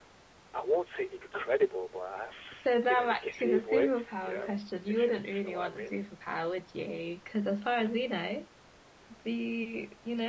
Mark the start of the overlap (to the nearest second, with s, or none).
3 s